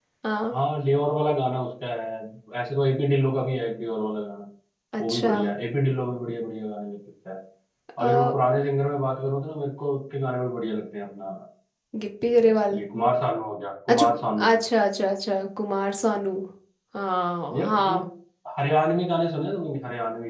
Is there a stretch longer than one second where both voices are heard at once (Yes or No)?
No